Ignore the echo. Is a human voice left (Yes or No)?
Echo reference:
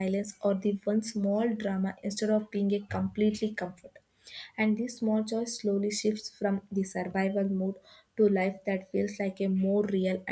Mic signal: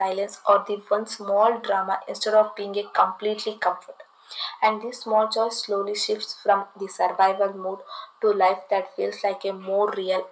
No